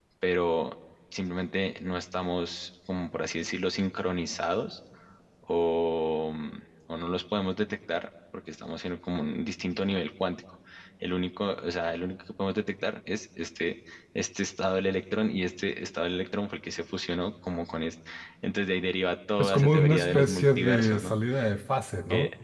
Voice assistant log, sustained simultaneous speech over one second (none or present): present